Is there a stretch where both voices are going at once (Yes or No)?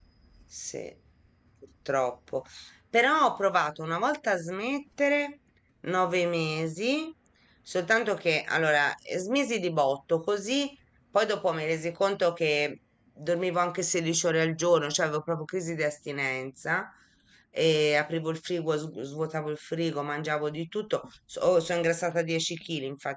No